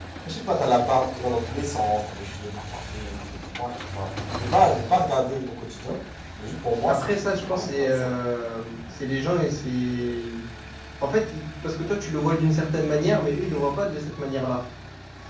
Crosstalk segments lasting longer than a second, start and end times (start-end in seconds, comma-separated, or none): 6.9-8.1